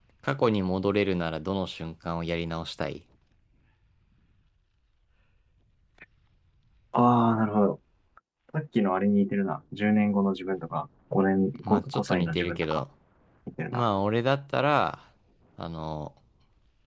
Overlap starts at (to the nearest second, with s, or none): 12 s